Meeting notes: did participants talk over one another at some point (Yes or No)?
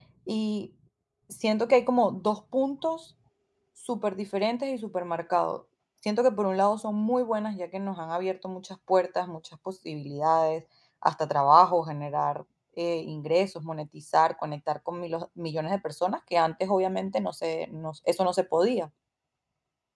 No